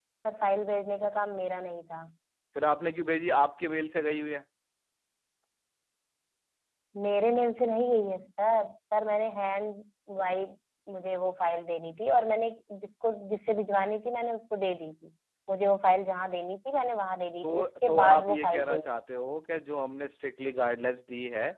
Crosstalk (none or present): present